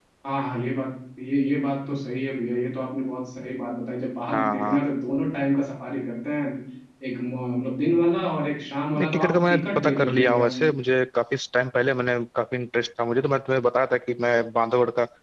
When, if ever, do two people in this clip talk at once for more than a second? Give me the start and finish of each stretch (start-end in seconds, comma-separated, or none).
9.0-10.5